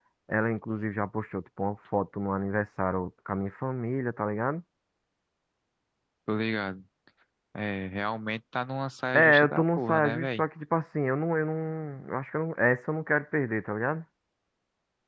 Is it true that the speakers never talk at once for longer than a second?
No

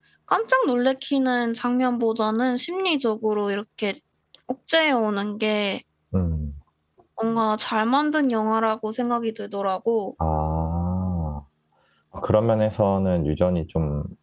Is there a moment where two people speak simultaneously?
No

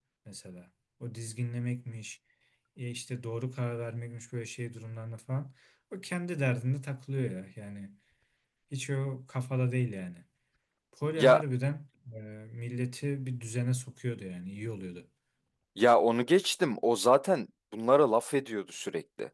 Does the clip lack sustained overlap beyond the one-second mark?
Yes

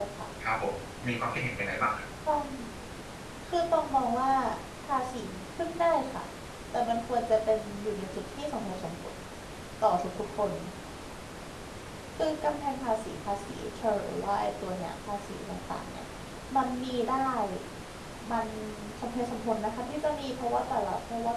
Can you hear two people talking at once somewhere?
No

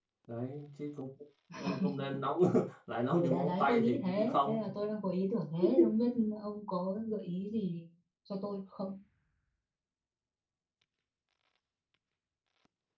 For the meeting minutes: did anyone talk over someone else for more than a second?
Yes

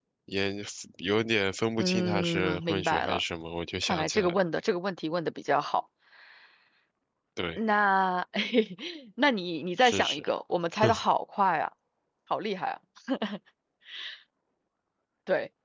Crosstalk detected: Yes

